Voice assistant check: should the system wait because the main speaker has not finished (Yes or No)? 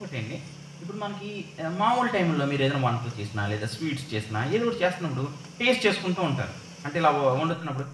Yes